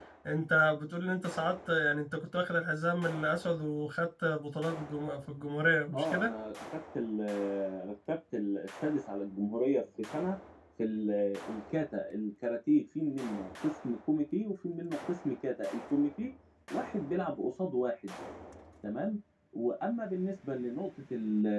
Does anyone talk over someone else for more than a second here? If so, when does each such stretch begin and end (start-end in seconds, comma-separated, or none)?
none